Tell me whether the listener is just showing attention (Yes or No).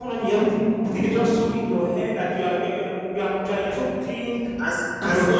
No